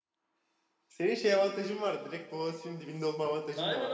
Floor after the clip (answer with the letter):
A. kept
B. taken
B